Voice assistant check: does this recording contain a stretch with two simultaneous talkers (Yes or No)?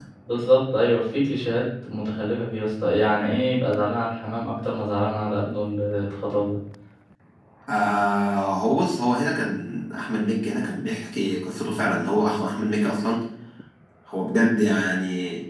No